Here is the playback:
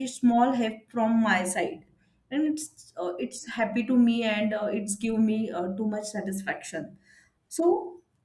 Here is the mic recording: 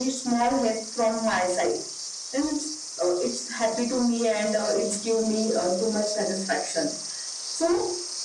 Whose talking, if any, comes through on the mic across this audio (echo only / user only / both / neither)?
echo only